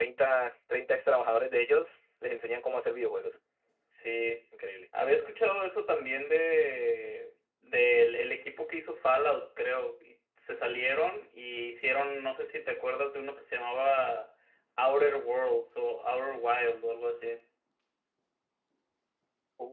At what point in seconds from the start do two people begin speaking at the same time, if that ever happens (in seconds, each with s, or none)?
none